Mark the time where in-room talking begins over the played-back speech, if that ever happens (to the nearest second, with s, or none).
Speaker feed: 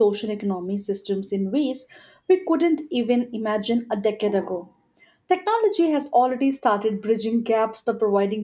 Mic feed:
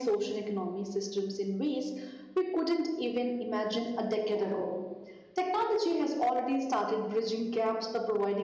none